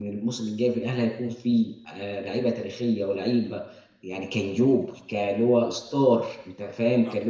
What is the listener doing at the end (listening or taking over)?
listening